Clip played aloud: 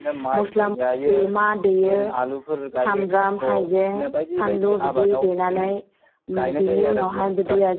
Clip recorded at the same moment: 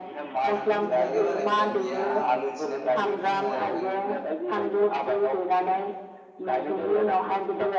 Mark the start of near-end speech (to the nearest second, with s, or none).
0 s